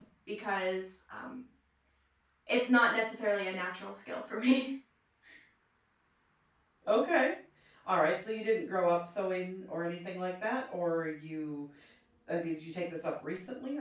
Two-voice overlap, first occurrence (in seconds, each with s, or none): none